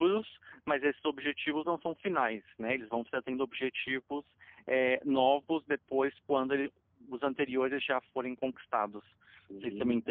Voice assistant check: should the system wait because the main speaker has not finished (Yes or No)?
No